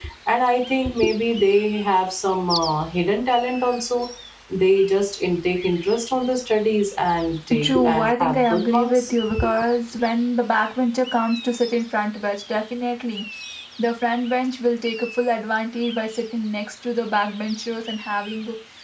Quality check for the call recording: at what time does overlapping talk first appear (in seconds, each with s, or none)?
7.5 s